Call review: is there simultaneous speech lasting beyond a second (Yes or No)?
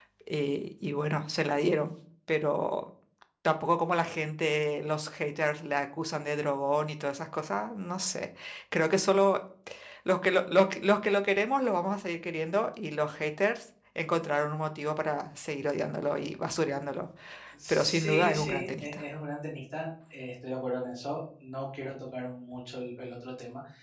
Yes